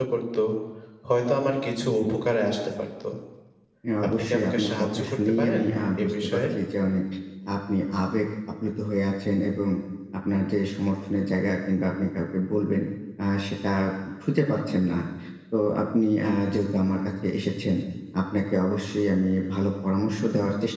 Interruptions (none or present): present